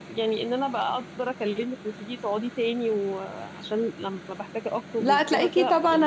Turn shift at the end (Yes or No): Yes